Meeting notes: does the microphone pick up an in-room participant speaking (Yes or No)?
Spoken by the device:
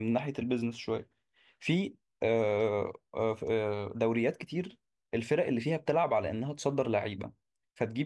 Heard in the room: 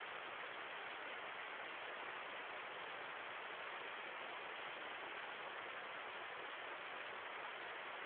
No